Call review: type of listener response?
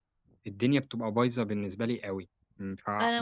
taking over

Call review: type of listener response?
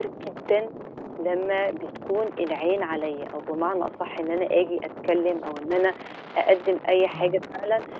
listening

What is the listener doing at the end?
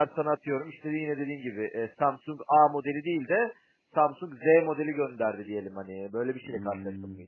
taking over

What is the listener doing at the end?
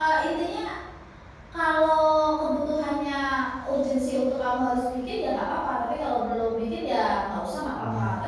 listening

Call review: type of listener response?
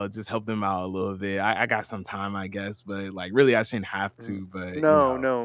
taking over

